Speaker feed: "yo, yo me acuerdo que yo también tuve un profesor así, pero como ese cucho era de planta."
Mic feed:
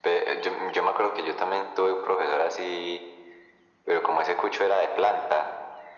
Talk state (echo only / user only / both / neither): echo only